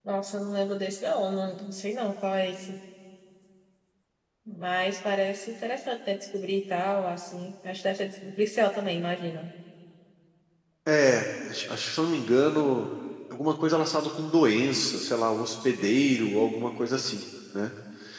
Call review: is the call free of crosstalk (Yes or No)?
Yes